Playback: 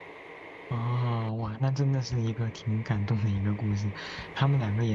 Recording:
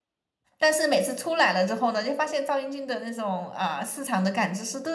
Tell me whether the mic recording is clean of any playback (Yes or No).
Yes